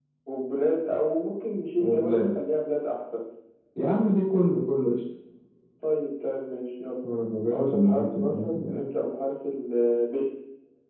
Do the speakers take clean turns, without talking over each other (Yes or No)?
No